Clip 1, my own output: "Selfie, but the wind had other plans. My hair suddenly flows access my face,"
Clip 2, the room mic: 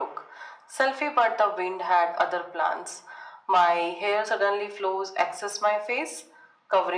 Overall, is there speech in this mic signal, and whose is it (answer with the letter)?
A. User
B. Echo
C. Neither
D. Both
B